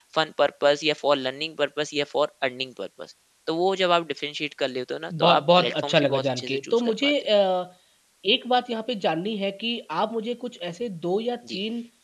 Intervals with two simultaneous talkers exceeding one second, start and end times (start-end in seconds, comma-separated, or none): 5.2-7.1